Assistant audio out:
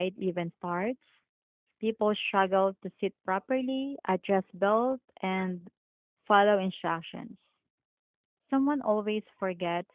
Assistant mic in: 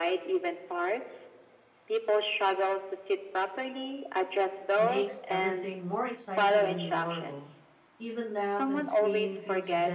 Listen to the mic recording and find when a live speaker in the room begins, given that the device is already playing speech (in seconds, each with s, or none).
4.8 s